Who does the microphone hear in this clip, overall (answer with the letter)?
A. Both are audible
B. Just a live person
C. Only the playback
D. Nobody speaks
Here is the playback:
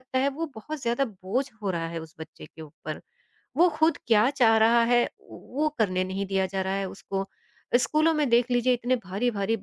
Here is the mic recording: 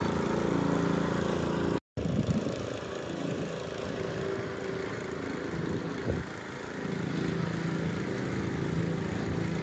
D